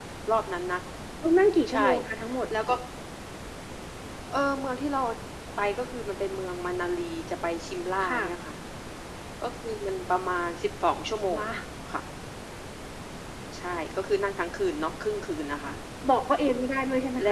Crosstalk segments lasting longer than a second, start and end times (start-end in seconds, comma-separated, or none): none